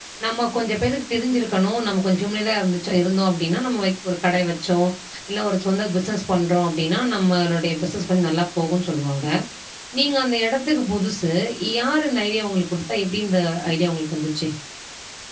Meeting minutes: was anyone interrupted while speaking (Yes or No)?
No